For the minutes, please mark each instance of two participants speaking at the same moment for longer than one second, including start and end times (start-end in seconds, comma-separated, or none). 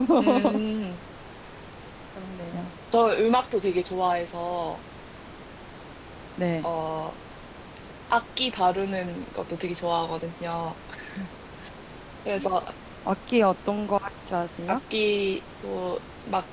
none